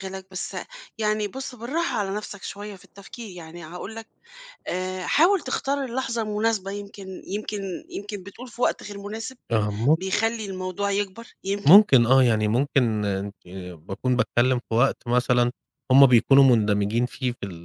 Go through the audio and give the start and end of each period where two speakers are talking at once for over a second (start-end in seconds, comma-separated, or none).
none